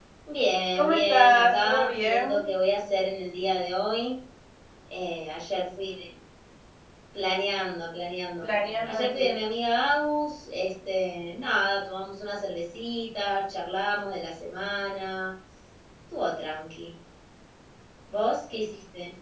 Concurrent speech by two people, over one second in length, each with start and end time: 0.8-2.4

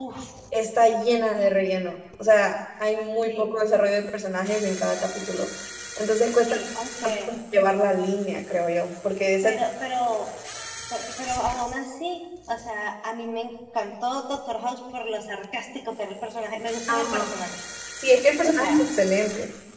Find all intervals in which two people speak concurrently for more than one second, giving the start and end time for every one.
none

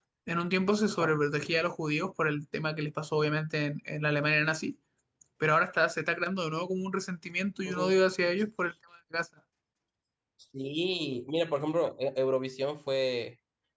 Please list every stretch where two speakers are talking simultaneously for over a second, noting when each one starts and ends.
none

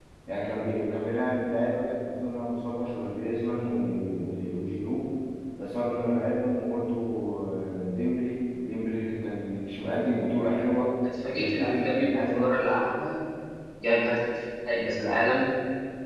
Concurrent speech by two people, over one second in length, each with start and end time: 11.3-12.5

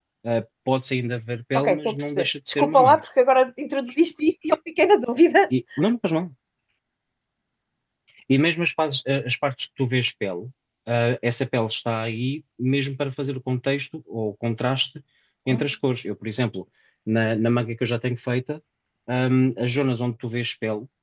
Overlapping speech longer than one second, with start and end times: 1.6-3.0

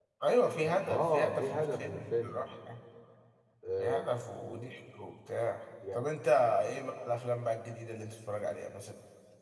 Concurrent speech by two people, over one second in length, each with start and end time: 0.6-2.4

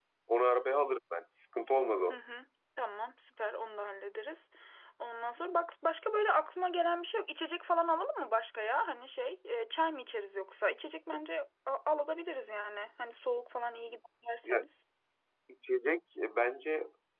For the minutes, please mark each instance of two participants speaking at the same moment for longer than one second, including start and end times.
none

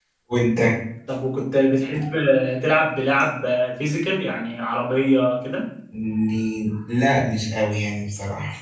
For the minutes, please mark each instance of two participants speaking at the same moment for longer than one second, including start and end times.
none

